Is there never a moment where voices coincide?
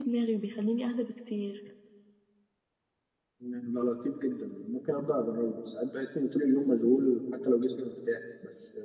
Yes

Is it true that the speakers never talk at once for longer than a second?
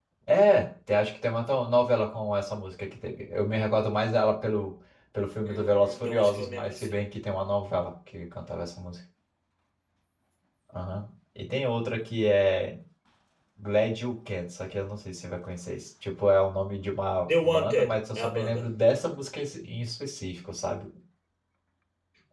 No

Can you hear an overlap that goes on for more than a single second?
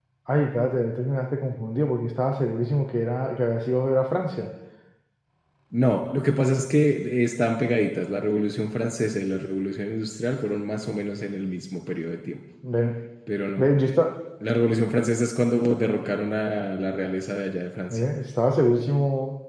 No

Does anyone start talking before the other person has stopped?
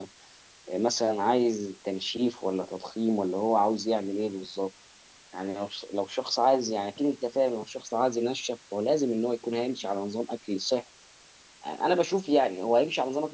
No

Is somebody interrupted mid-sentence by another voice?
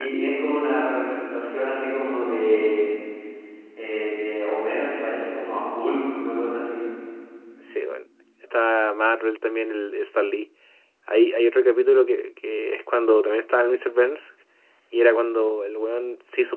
No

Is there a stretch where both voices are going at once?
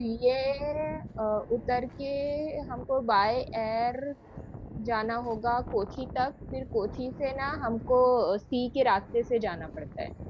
No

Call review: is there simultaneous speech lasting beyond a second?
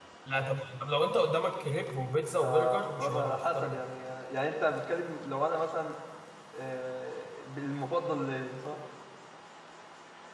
Yes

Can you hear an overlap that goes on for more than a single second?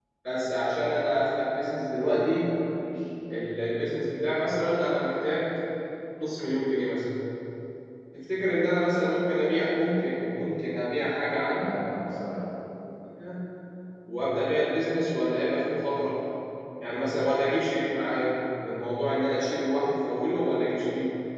No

